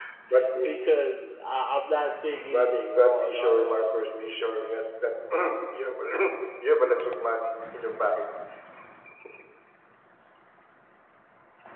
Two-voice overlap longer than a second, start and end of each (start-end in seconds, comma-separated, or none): 2.4-4.0